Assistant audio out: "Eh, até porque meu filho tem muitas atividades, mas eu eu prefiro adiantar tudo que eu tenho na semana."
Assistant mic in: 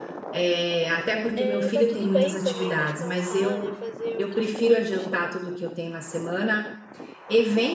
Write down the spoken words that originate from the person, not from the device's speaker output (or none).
eh, tá tudo bem também descansar, né, fazer outras coisas